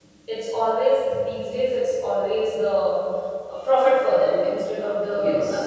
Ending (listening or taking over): listening